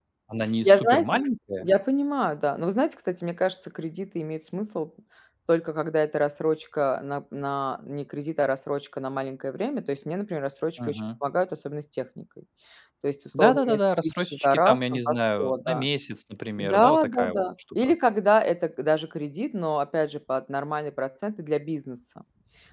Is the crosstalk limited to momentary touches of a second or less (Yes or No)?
No